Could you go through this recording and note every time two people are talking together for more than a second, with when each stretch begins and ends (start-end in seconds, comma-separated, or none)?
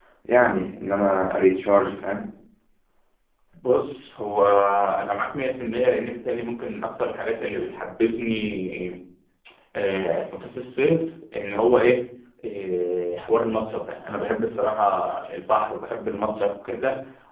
none